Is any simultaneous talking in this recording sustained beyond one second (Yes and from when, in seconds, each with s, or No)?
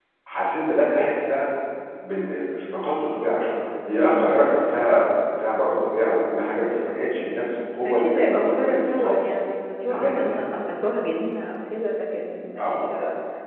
Yes, from 7.8 s